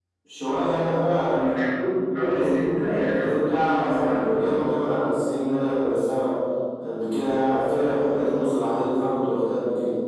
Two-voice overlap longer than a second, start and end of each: 2.1-4.5

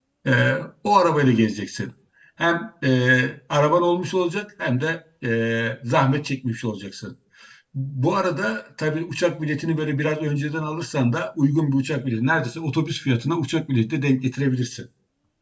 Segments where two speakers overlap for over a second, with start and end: none

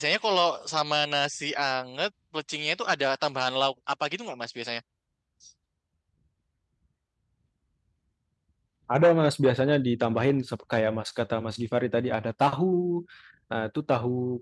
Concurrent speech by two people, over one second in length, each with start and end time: none

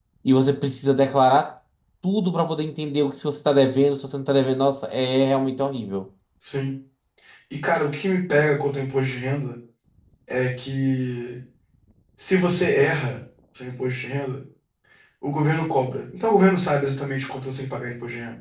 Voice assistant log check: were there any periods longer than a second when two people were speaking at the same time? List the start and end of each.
none

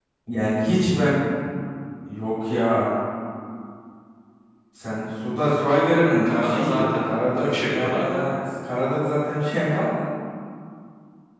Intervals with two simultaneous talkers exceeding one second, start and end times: 6.2-8.3

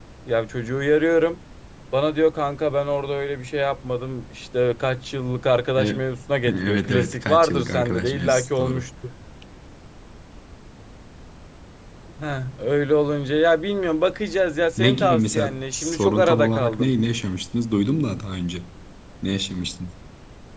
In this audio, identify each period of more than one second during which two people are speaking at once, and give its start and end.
6.5-8.8, 14.8-17.0

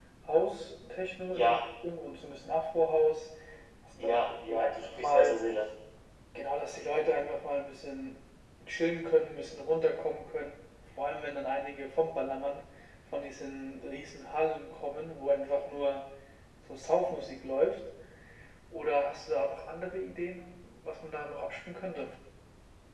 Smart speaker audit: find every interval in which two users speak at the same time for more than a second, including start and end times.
4.0-5.4

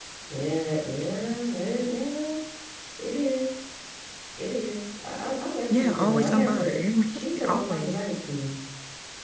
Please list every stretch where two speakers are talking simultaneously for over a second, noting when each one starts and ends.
5.7-8.0

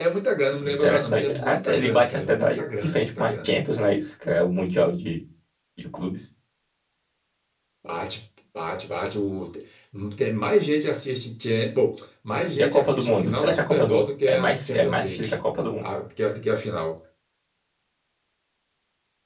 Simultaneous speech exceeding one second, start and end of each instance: 0.7-3.5, 12.5-15.3

